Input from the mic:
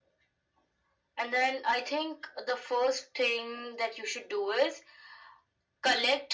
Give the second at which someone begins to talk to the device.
none

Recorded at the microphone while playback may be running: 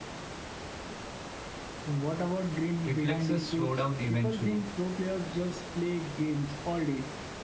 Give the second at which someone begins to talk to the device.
3 s

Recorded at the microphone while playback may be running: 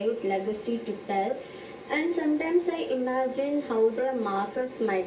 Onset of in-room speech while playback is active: none

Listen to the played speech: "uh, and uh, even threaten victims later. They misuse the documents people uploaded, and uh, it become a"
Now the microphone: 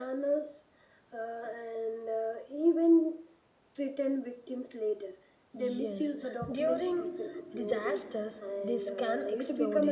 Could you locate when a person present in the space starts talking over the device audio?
6 s

